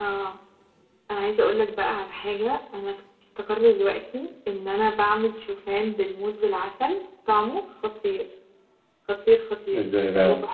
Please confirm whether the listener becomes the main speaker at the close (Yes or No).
No